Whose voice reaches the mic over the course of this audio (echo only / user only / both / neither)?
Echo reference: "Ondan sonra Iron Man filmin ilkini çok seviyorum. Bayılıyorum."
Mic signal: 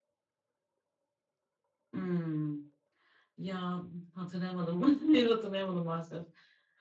user only